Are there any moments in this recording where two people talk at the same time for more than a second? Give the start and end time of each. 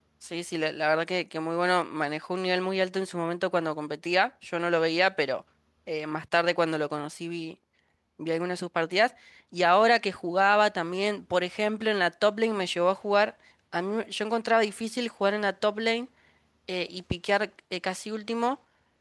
none

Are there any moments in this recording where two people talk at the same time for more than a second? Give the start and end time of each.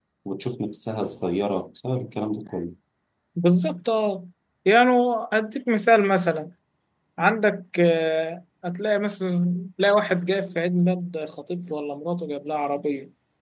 none

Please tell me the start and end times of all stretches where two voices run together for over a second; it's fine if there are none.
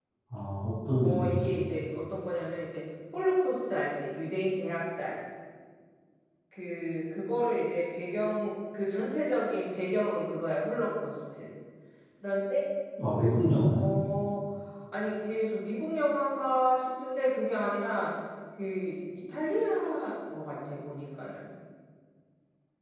none

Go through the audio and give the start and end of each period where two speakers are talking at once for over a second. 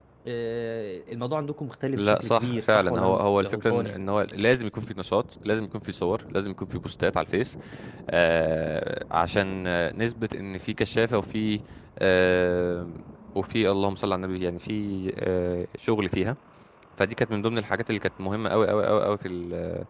1.9-4.0

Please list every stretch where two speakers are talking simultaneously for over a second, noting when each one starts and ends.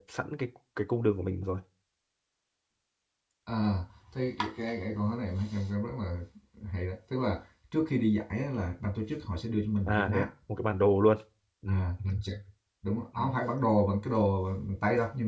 none

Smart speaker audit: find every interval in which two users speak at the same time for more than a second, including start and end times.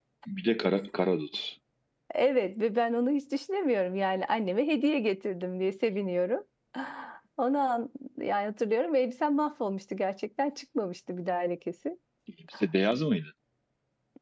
none

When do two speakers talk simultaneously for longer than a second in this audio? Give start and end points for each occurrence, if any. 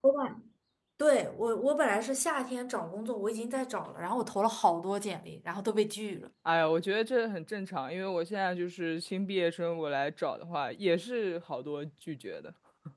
none

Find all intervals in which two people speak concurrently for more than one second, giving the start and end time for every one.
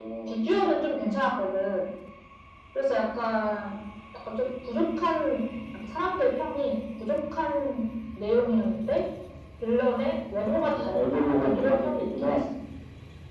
10.4-12.4

